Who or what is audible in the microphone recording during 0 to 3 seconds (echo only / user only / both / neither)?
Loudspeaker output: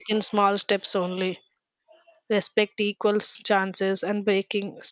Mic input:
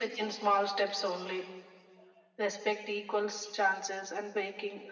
echo only